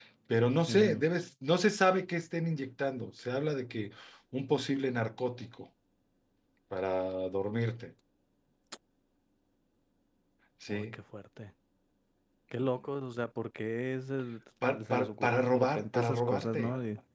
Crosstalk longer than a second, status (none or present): present